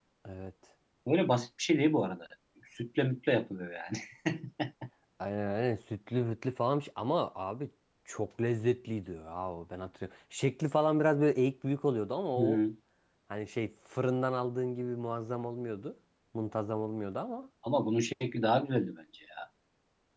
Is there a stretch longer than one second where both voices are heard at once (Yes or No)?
No